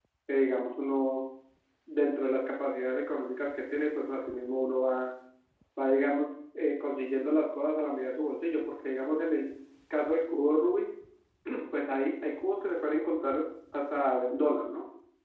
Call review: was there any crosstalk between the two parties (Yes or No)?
No